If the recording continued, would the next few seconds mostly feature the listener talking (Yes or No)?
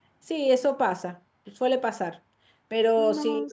No